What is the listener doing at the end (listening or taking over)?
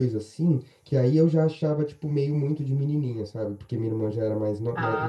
listening